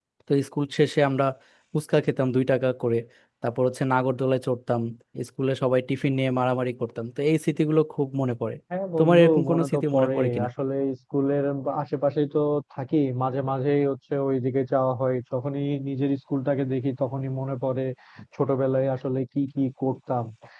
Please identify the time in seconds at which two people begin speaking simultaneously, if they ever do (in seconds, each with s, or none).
9.0 s